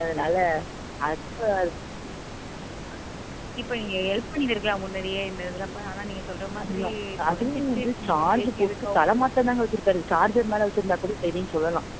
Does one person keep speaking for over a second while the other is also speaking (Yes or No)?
Yes